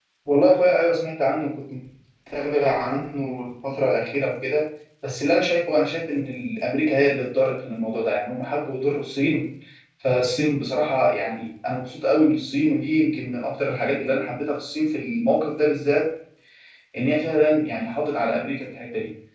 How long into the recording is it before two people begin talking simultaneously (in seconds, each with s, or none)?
none